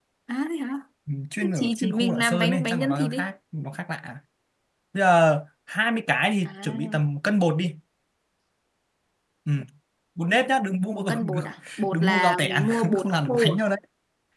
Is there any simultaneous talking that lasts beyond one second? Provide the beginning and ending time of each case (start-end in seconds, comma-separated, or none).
1.4-3.3, 11.9-13.6